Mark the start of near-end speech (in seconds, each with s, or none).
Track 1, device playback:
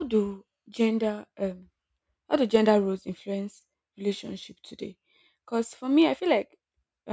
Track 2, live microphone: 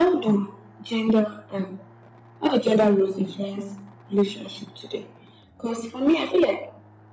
none